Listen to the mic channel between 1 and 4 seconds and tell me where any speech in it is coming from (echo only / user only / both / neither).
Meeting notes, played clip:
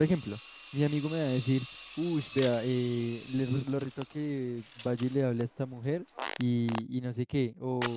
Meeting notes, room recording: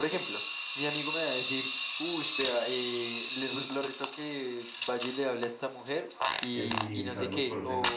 echo only